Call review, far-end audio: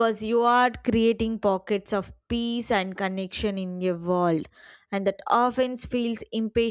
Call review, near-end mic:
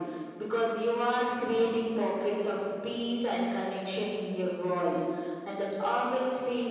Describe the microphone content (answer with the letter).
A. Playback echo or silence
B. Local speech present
A